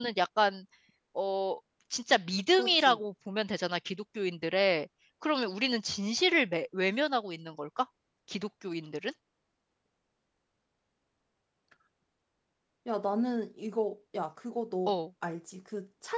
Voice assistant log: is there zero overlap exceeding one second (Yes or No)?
Yes